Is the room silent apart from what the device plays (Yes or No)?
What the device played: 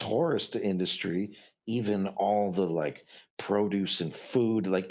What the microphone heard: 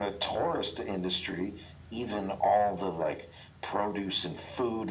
Yes